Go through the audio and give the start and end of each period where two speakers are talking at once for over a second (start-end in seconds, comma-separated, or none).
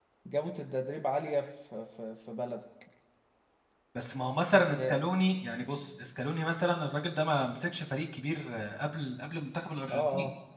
none